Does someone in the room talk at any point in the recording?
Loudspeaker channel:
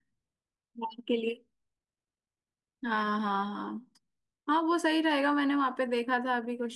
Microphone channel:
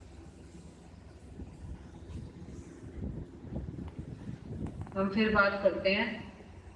Yes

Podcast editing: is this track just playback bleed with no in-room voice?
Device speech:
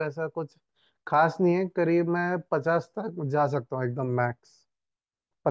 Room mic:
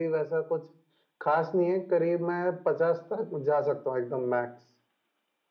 Yes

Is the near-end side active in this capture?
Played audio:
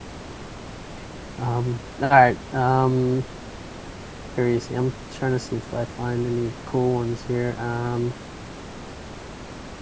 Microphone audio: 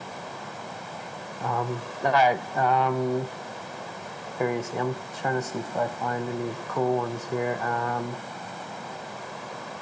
No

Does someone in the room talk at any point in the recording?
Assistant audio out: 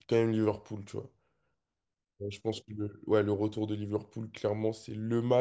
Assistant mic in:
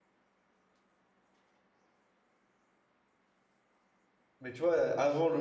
Yes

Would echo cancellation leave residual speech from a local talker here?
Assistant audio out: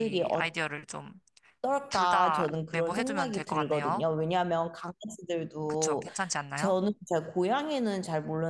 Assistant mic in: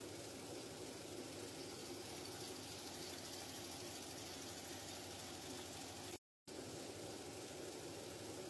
No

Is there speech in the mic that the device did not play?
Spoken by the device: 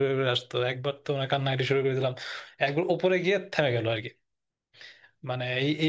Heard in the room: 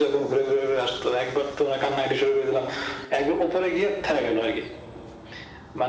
No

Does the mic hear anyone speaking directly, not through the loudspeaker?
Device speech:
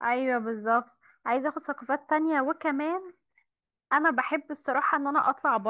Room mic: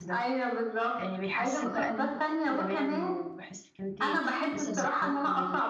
Yes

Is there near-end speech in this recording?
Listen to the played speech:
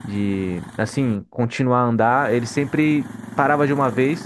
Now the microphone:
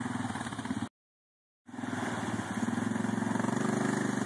No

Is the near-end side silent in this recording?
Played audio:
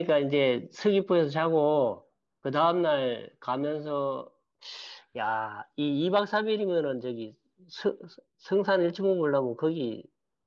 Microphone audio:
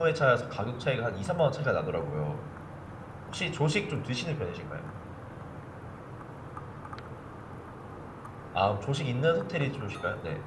No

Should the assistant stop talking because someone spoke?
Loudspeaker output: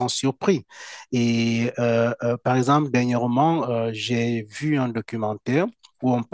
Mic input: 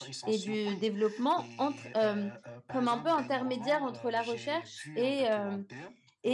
Yes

